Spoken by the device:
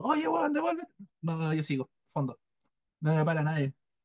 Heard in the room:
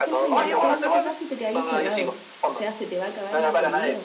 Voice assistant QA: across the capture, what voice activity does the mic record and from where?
both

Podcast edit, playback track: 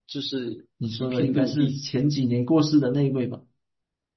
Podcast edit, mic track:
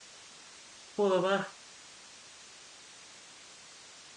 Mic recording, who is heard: user only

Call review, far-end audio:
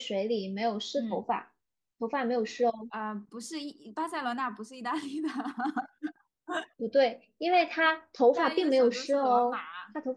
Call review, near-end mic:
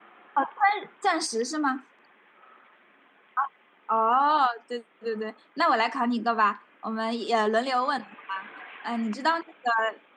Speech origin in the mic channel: user only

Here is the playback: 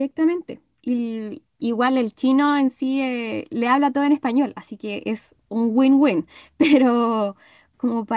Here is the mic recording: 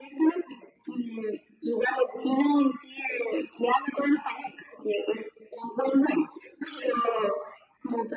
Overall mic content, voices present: echo only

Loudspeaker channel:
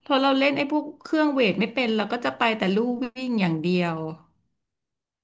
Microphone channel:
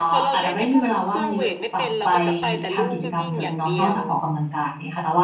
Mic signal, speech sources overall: both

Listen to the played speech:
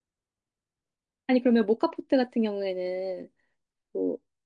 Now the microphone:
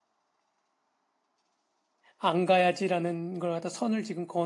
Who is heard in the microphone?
user only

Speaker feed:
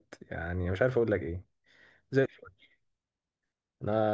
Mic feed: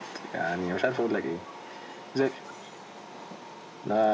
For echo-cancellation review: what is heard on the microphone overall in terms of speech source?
echo only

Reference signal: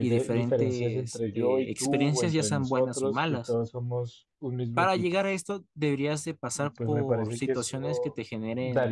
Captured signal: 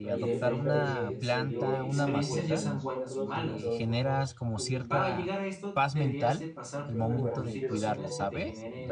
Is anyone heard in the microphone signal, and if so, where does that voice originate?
both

